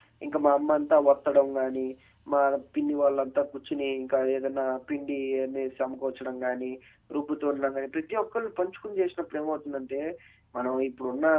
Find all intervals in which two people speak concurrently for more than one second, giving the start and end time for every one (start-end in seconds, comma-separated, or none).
none